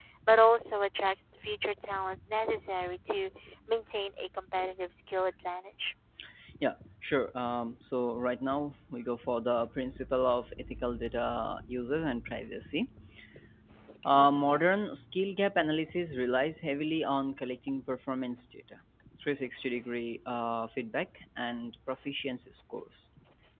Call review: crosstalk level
none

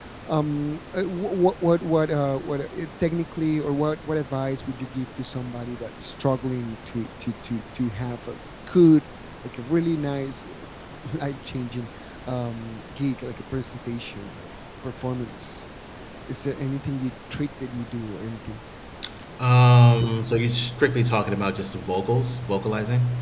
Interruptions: none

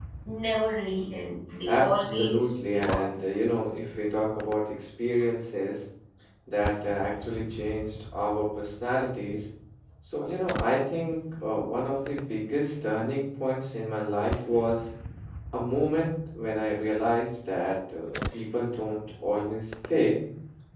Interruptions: present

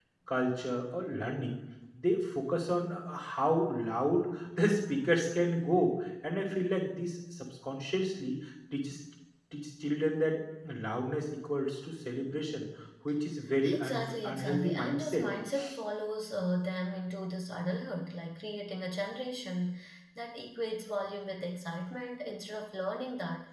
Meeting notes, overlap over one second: present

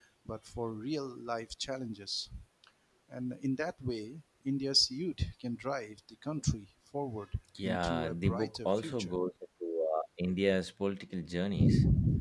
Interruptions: present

